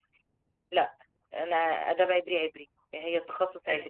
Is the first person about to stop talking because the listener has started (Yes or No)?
Yes